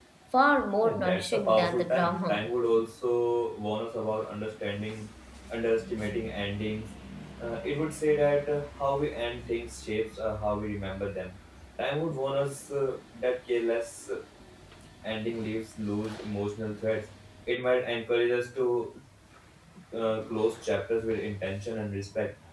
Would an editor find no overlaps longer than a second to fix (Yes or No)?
No